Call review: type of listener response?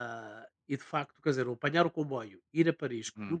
listening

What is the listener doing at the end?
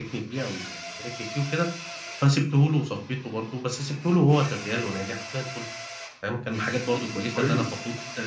listening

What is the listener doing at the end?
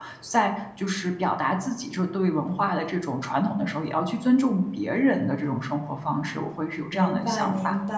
taking over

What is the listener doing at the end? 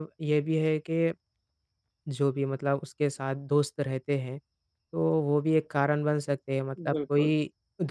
listening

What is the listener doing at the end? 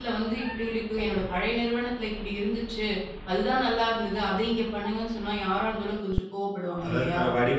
taking over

